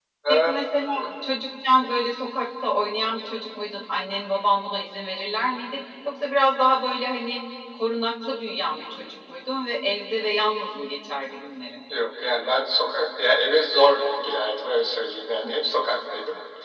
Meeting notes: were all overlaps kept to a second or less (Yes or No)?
Yes